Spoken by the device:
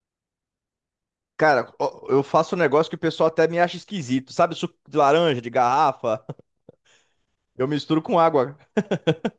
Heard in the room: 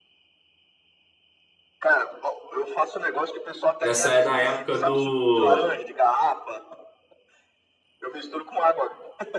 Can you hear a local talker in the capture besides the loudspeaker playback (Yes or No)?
Yes